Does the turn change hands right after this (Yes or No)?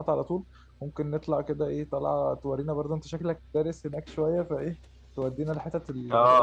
Yes